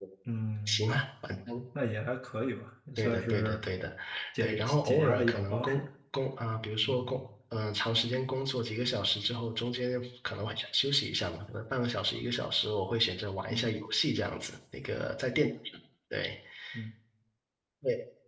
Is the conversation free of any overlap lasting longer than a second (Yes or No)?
No